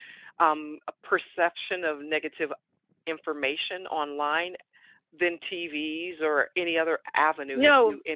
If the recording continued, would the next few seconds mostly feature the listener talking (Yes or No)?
Yes